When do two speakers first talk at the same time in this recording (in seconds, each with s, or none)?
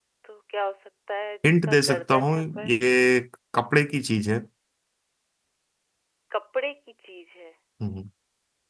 1.4 s